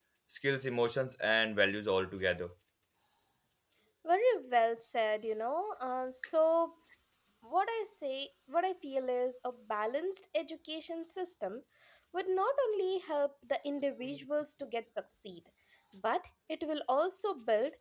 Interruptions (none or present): none